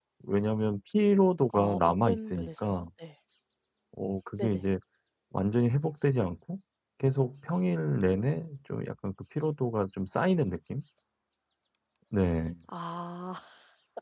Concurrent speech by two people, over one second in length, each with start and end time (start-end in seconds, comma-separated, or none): 1.5-2.9